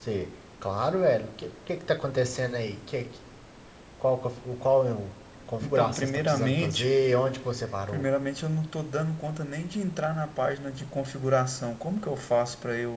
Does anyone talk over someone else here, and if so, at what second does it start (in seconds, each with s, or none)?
5.6 s